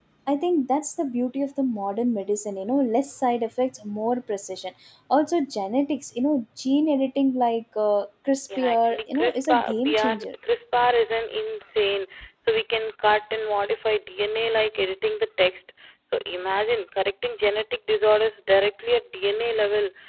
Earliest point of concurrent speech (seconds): 8.5 s

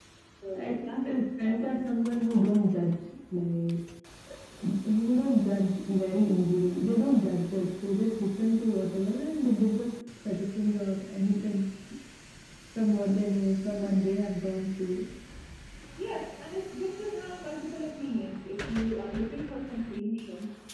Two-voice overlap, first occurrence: 0.5 s

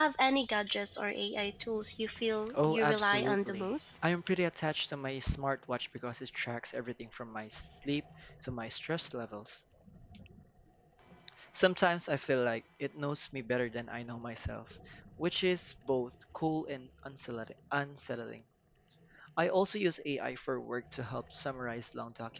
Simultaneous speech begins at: 2.5 s

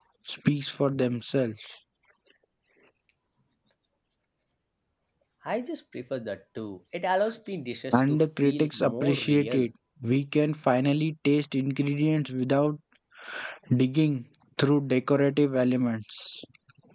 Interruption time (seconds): 7.9 s

